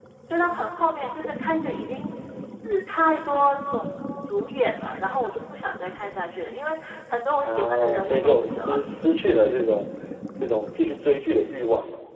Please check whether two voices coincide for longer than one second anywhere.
Yes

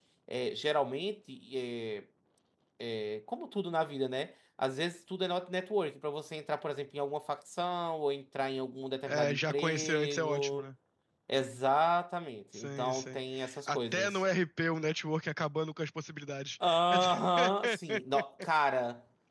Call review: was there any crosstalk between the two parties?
Yes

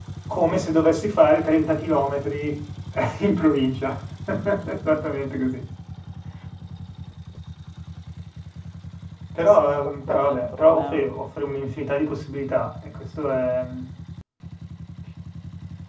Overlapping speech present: Yes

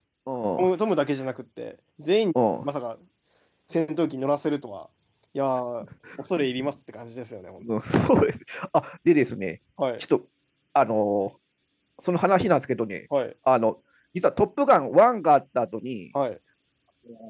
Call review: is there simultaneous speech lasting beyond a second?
No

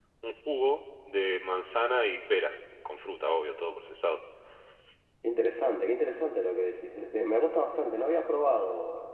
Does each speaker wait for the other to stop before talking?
Yes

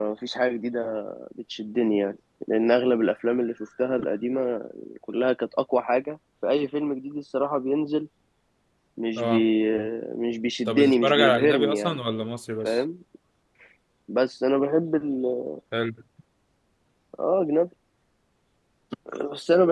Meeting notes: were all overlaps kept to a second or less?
No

